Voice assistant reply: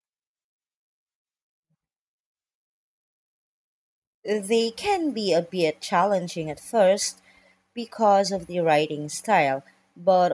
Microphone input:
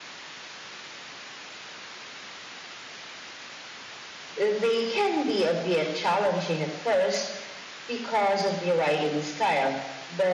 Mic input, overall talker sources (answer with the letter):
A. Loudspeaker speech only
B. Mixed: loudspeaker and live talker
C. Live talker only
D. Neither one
A